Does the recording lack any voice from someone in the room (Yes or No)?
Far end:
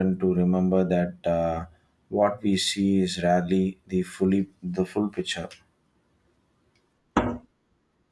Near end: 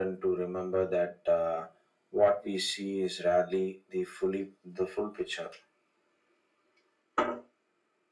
Yes